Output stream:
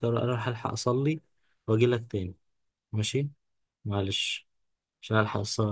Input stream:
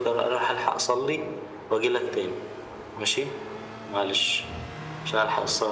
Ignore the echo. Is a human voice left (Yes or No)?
No